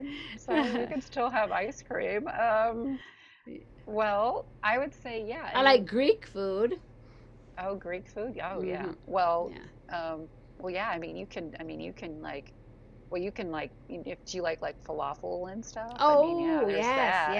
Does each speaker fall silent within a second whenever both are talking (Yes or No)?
No